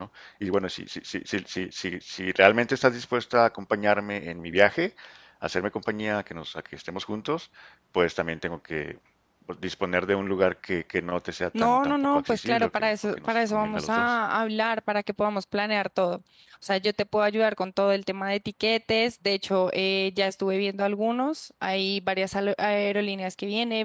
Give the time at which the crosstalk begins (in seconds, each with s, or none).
11.5 s